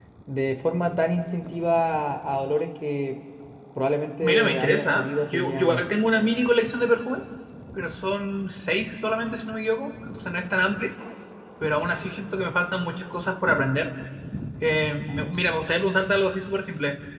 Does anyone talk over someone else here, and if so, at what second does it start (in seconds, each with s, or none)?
4.2 s